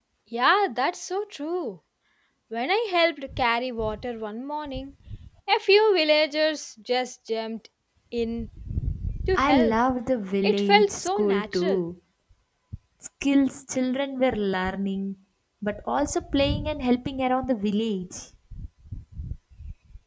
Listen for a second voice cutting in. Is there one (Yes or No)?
Yes